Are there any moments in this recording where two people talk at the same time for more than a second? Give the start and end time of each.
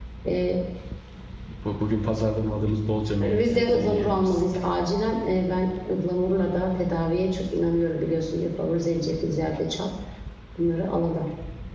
3.2-4.4

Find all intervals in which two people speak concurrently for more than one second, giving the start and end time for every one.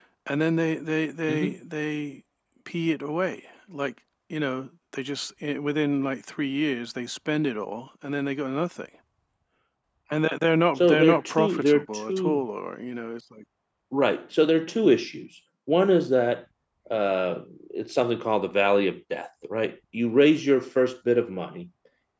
10.8-12.4

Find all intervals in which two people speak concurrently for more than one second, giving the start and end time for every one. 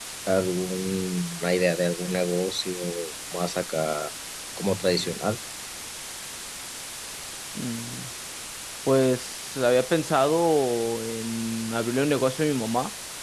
none

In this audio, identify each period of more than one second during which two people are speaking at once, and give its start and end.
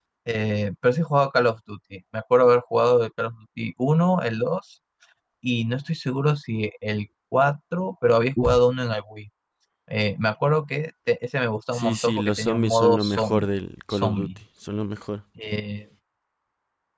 11.7-13.5

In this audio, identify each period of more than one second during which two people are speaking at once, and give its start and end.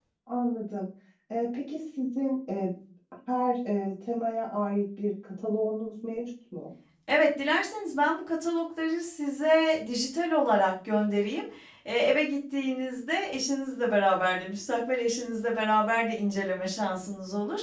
none

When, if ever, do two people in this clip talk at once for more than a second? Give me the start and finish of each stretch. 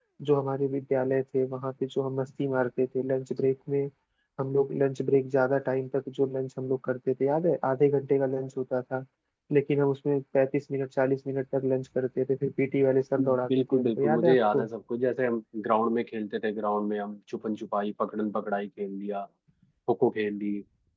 13.2-14.7

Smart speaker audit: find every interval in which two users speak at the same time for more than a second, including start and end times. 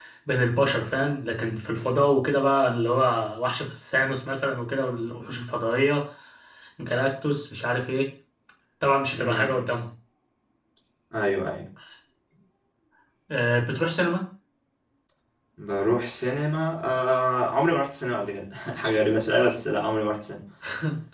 none

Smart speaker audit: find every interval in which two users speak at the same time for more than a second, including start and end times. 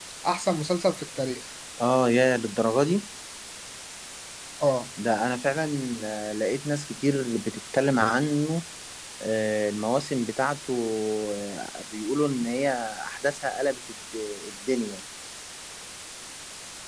none

